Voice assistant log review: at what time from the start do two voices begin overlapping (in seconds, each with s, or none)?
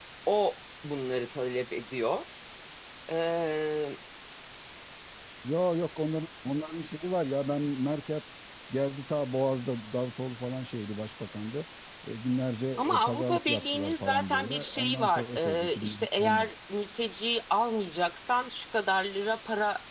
12.8 s